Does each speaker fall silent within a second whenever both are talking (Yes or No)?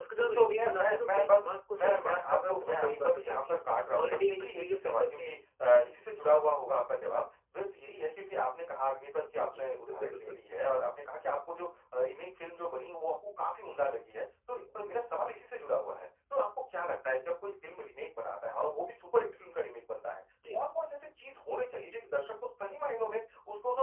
No